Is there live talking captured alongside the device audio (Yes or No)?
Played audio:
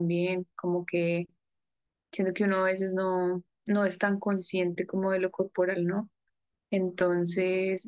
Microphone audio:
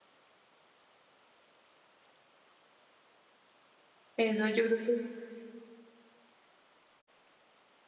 Yes